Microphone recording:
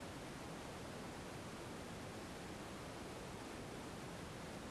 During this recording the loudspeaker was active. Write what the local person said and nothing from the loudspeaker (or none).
none